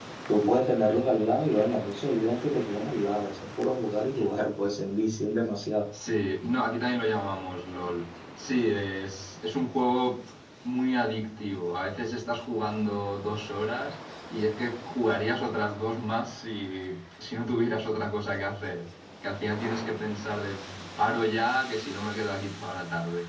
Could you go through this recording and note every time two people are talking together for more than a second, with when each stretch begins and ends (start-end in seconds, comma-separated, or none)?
none